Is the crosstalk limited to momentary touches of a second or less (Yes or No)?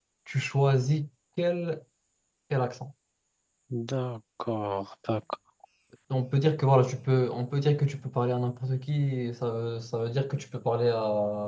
Yes